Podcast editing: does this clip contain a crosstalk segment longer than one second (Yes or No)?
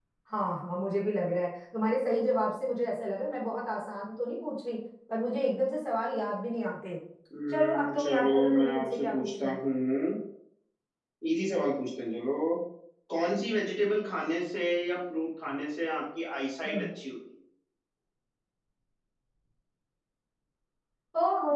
Yes